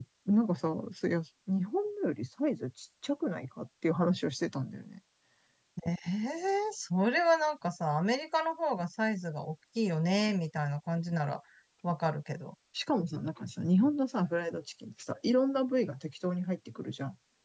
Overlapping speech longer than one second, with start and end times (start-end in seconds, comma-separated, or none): none